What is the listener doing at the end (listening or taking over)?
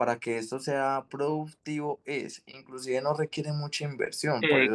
taking over